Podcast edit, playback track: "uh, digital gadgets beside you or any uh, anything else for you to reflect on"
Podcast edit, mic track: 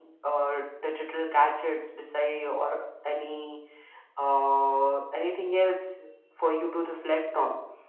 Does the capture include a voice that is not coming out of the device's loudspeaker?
No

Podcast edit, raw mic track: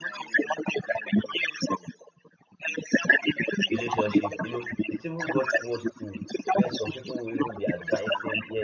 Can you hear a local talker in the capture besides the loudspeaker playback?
Yes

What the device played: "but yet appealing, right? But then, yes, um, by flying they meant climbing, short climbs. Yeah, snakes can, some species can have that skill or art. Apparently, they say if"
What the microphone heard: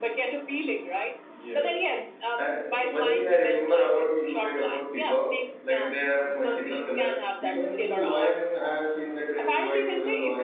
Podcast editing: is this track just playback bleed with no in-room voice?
No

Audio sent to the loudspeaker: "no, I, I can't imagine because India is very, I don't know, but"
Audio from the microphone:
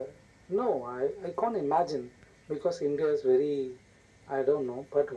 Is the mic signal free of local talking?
Yes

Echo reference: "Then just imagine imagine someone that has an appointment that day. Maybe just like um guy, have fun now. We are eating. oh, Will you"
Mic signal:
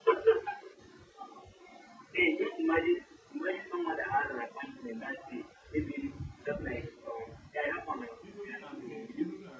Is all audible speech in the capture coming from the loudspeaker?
No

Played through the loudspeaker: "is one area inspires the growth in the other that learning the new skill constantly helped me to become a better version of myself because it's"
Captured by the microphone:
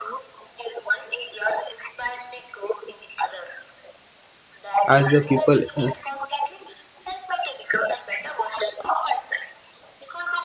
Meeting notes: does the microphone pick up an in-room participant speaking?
Yes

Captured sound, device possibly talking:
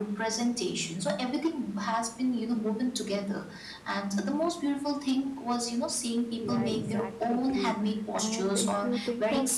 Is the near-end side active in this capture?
Yes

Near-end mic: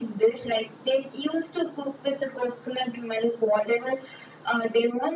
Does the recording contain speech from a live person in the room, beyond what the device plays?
No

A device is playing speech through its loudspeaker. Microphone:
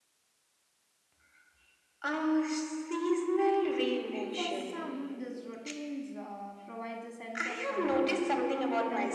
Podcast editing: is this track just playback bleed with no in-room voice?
No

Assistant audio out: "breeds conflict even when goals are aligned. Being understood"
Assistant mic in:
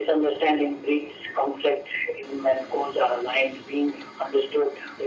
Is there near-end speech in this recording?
No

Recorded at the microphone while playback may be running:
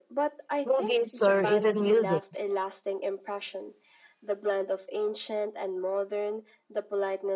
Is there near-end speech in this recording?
Yes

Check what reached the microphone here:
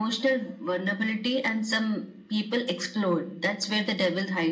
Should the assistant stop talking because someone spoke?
No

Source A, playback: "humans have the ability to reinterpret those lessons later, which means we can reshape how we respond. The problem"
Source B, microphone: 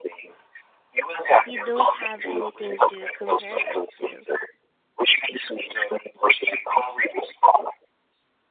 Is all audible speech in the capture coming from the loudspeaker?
No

